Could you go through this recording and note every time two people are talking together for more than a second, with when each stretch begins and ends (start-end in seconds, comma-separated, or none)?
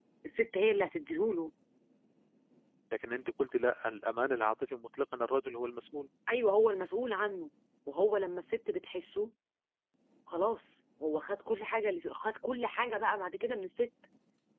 none